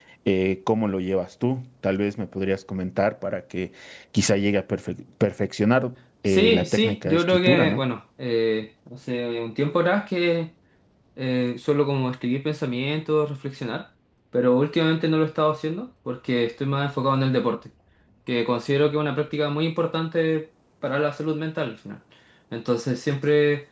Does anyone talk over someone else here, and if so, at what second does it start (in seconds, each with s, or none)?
6.3 s